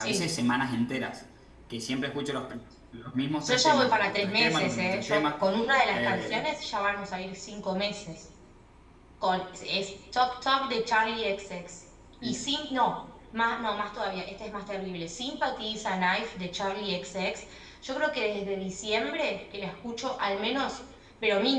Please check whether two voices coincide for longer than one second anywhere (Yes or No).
Yes